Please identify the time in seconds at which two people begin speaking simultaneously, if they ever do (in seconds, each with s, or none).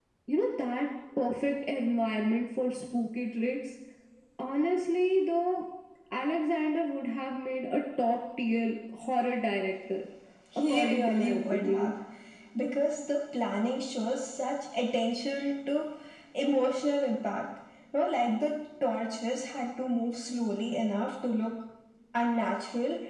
10.7 s